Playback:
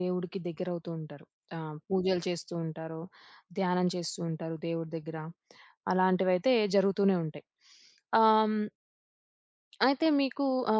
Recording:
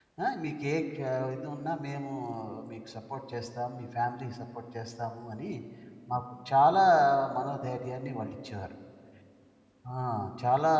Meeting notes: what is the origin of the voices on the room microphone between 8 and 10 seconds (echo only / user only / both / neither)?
user only